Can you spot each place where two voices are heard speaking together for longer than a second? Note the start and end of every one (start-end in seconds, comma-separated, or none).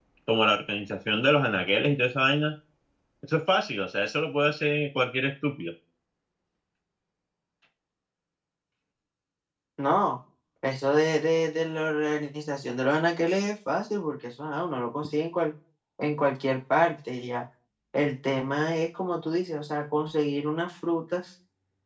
none